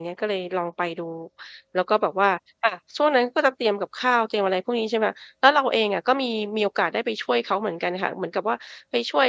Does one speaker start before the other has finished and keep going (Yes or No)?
No